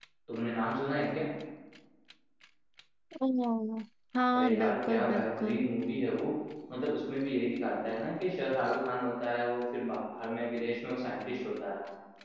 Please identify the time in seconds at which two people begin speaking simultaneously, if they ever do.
4.3 s

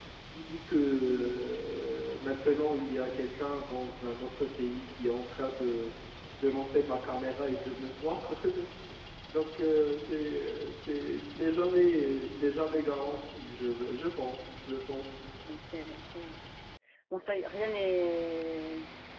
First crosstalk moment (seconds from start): none

